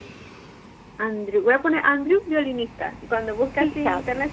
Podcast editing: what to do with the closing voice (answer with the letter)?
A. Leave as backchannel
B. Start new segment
A